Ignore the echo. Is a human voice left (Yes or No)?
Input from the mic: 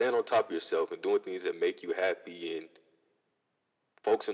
No